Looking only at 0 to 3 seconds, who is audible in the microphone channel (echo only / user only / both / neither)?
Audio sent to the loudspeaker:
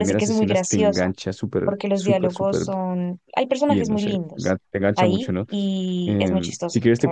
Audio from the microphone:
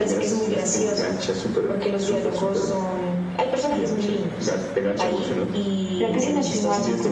echo only